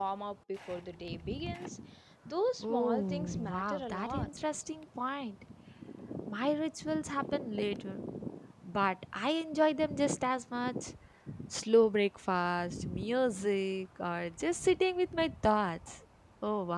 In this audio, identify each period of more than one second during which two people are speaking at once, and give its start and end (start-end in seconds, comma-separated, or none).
2.6-4.3